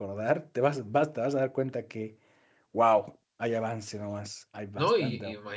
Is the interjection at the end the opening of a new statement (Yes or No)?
Yes